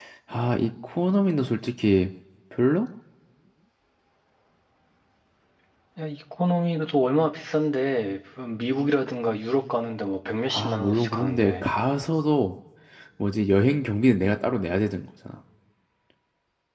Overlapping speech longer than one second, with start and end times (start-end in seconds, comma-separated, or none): 10.5-11.7